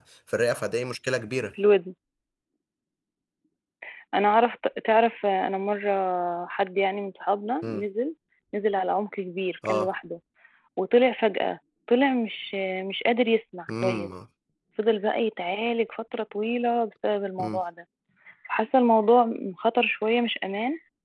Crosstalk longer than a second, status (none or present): none